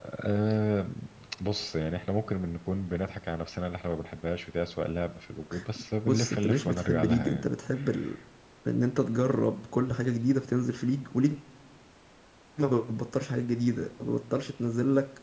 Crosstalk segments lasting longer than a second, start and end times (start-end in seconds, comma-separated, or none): 6.1-7.4